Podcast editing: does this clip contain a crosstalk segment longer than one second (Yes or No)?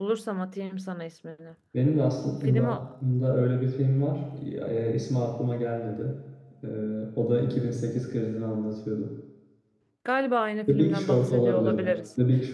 Yes